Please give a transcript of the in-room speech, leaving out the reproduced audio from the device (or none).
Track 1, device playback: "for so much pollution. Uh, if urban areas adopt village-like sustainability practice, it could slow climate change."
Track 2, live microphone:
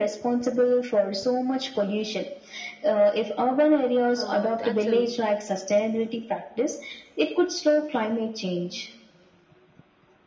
Oh, that's a